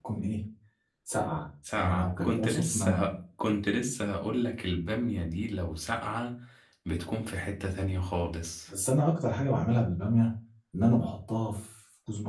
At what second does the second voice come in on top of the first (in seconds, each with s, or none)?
1.8 s